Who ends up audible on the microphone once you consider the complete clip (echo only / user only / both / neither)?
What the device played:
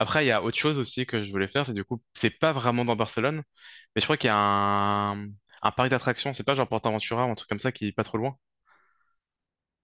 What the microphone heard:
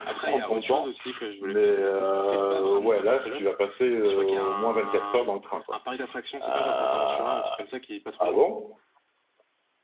both